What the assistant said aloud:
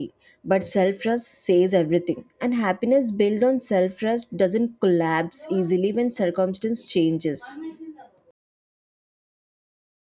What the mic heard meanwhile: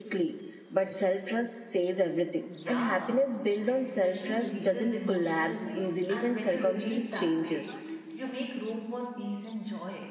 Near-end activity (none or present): present